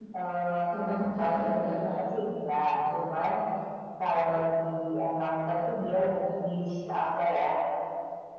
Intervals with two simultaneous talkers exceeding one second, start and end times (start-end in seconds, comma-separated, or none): 0.7-2.0